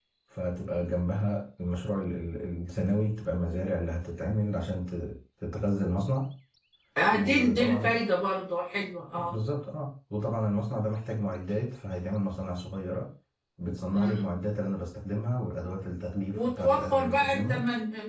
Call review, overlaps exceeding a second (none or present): present